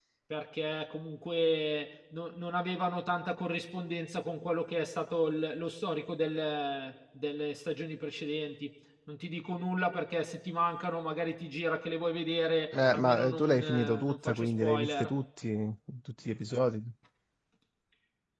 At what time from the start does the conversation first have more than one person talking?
12.7 s

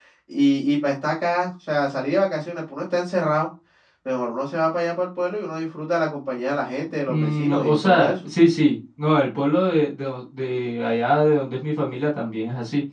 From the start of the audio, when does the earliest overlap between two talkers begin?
7.1 s

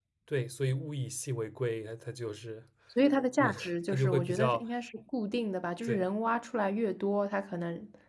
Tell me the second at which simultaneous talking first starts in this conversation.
3.4 s

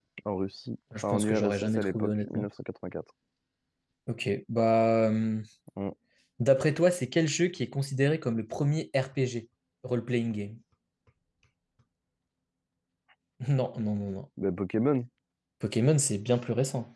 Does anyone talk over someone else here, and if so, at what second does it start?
1.1 s

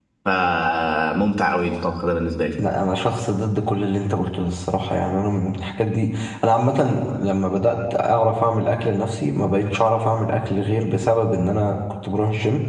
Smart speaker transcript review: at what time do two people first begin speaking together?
none

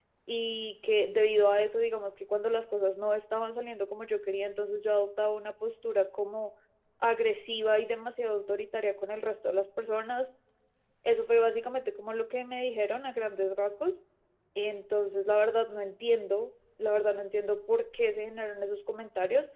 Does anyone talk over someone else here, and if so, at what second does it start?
none

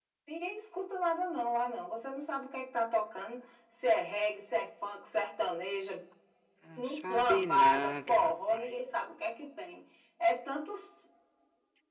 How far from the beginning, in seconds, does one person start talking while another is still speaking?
6.8 s

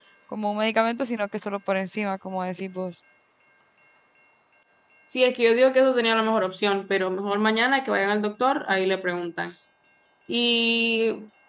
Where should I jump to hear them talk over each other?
none

